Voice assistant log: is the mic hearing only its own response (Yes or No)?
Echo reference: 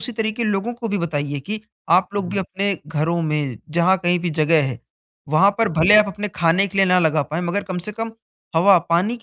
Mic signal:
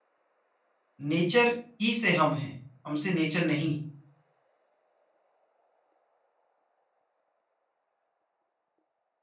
No